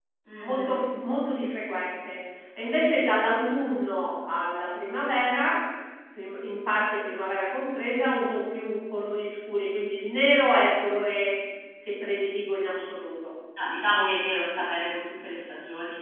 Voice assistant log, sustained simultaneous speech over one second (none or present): none